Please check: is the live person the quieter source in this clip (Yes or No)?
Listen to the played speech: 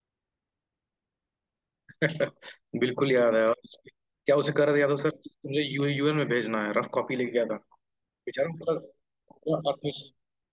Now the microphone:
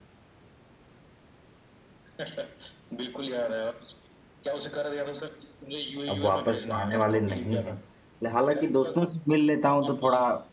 No